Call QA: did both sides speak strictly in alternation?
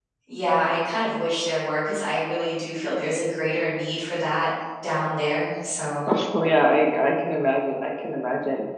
Yes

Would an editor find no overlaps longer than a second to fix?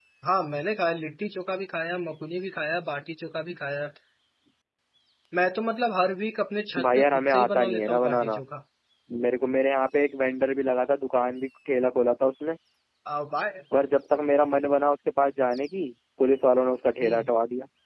No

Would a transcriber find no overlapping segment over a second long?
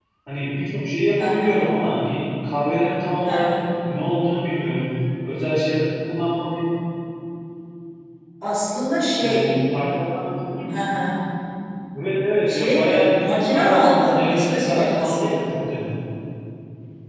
No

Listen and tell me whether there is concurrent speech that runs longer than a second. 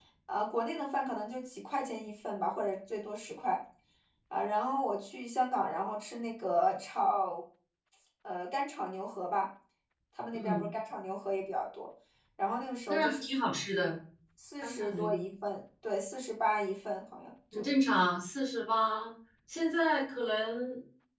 No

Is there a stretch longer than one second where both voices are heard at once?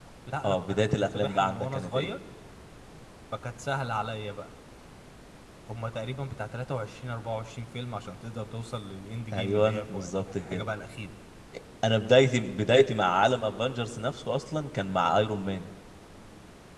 Yes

